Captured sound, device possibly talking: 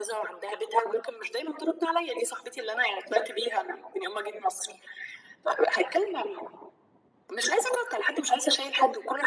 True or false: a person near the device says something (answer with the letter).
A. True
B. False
B